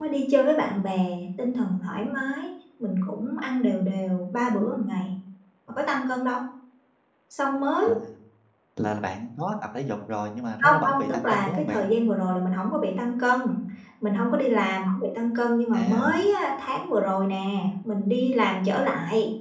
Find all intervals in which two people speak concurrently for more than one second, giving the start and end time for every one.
10.6-11.8

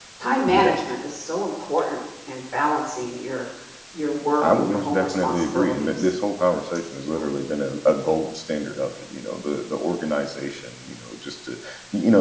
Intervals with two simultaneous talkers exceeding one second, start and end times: 4.4-6.1

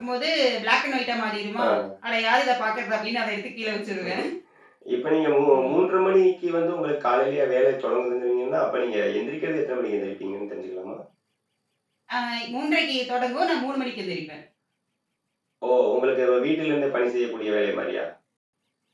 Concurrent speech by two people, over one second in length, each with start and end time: none

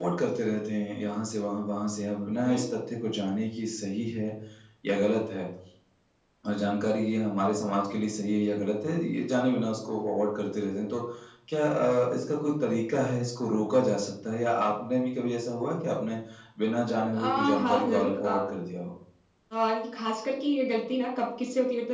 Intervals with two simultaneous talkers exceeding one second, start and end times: 17.1-18.4

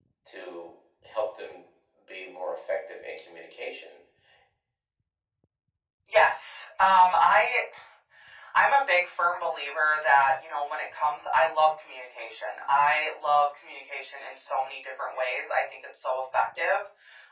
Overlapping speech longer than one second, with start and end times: none

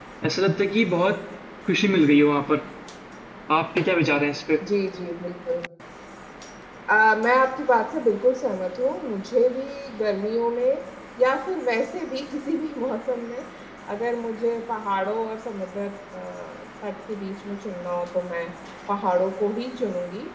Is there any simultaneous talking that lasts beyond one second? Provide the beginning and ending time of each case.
none

